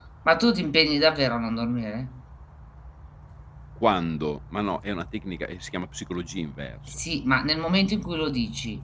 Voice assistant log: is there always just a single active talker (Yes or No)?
Yes